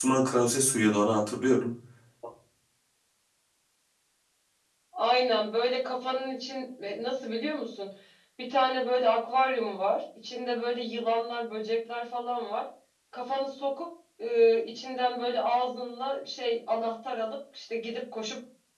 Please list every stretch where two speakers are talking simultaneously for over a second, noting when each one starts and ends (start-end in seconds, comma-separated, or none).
none